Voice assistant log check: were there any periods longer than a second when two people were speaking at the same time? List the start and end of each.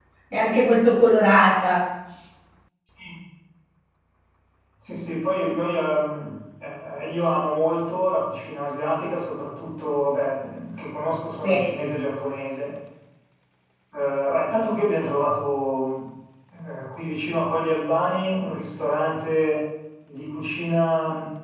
none

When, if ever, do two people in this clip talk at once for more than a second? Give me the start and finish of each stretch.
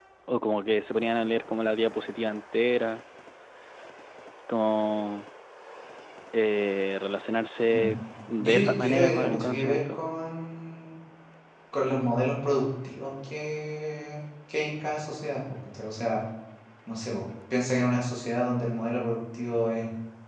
8.4-10.0

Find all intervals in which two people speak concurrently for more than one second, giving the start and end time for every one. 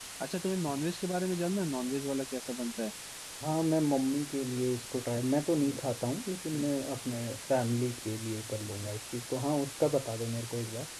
none

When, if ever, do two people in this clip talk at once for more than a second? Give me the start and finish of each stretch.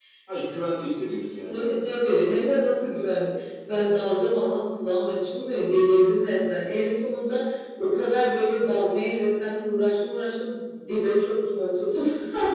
none

